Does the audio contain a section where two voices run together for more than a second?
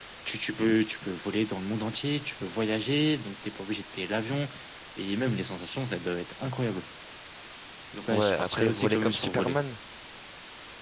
Yes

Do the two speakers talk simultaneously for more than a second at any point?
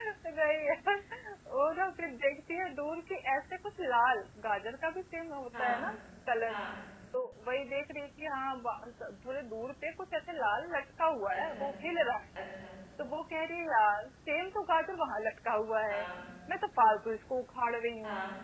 No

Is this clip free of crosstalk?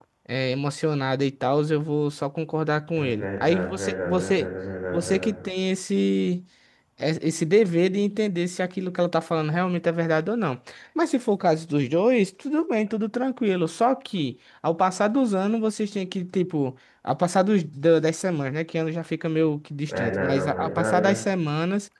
No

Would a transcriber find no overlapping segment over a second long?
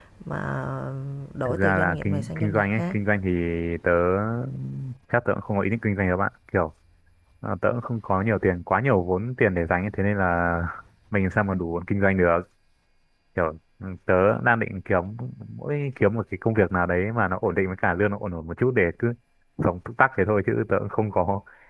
No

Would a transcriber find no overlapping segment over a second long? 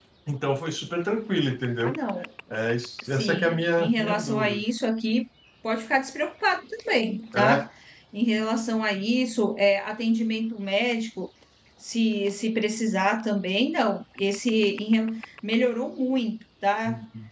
No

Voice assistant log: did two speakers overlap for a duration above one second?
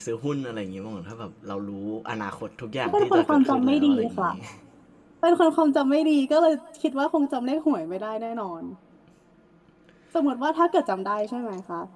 Yes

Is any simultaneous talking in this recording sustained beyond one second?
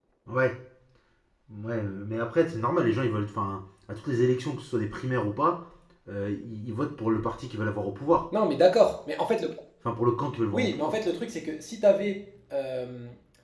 No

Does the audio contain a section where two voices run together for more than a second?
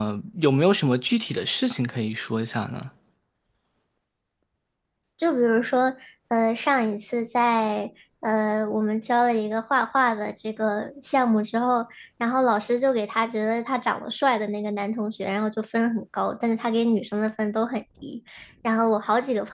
No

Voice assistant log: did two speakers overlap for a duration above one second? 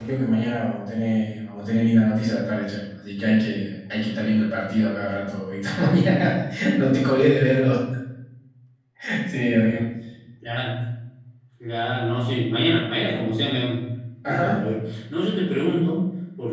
No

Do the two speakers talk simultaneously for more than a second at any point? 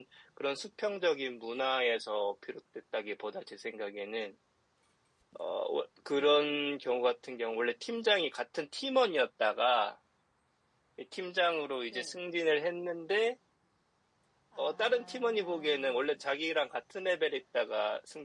Yes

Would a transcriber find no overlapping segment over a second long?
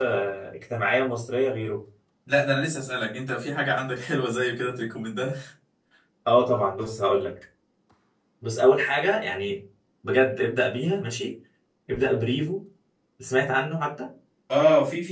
Yes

